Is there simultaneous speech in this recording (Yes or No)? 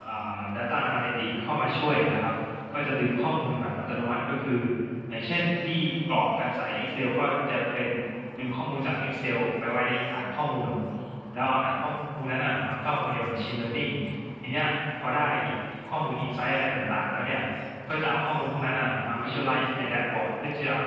No